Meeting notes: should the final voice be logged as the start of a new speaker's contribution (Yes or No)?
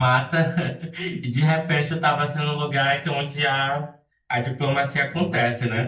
Yes